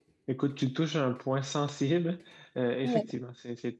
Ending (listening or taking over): listening